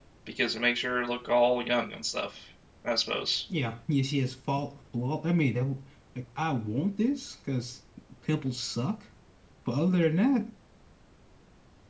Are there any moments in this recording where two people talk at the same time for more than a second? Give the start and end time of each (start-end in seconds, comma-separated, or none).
none